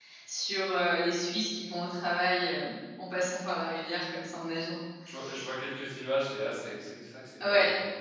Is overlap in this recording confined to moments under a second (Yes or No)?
Yes